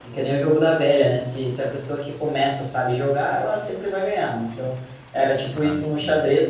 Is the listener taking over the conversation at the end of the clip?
No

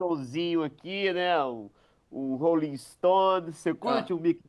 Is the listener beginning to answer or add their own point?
No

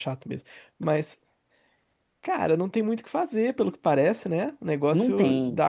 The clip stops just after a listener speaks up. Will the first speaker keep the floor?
Yes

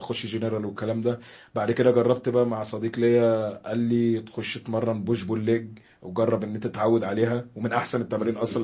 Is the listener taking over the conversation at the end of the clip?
Yes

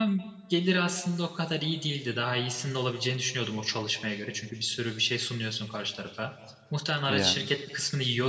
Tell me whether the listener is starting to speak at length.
No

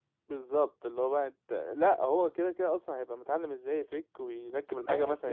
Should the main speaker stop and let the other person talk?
Yes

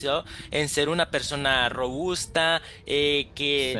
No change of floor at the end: Yes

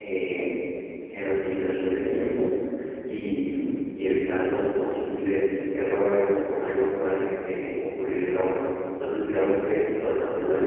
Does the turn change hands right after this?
No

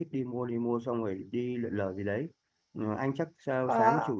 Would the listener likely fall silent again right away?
Yes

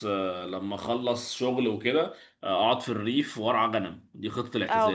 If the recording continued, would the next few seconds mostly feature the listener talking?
Yes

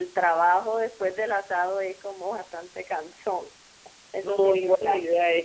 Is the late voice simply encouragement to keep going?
No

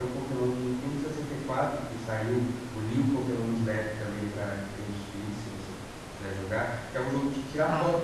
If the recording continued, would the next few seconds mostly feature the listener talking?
No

